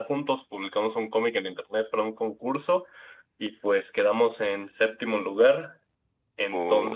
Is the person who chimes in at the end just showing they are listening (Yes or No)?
Yes